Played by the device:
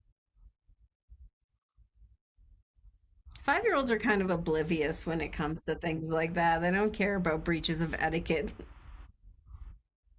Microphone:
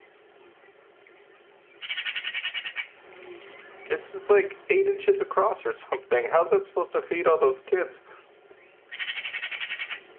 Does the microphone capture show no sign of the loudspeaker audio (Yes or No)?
Yes